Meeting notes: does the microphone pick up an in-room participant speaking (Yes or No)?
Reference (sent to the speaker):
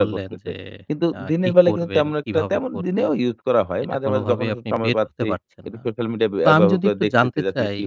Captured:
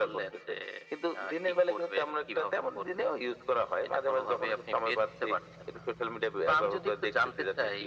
No